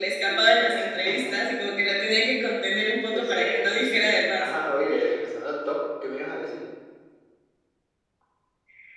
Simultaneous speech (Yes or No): Yes